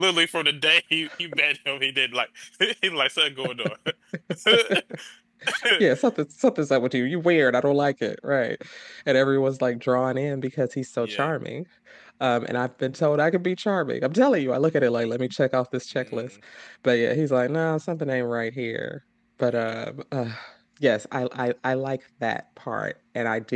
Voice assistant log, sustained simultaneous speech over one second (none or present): none